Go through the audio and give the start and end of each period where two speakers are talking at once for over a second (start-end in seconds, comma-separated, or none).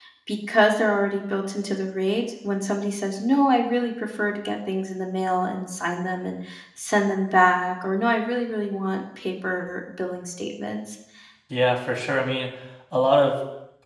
none